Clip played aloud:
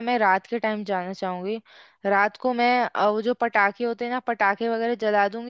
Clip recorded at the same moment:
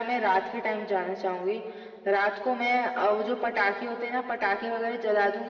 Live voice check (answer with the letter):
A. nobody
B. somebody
A